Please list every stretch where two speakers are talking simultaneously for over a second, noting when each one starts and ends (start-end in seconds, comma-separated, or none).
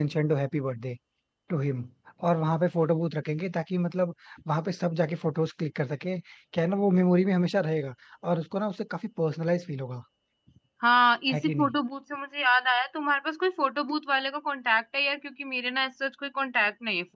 none